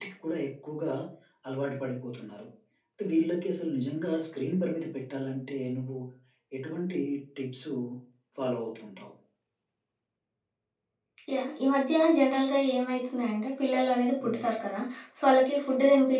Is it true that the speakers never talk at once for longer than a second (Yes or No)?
Yes